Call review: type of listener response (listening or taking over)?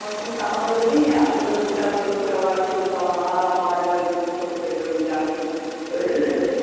taking over